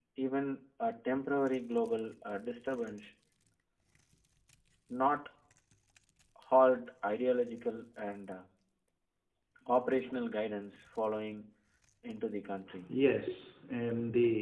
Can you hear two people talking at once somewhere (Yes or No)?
No